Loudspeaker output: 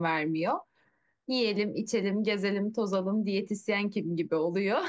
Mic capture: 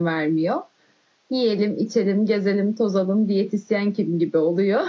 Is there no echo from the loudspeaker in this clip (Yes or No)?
No